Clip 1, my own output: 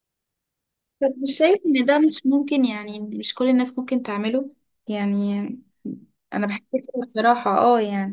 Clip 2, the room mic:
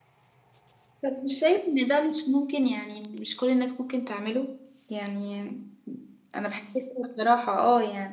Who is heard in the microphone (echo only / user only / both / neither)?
echo only